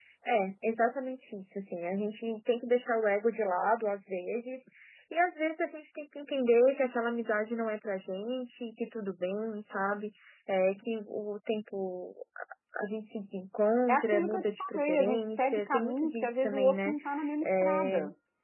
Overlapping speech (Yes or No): Yes